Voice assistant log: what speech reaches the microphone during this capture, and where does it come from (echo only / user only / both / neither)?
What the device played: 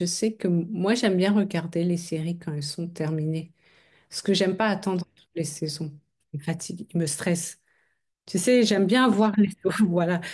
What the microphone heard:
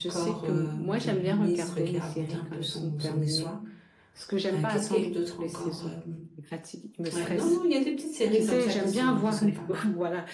both